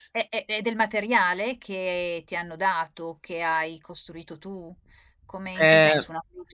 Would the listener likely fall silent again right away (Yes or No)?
Yes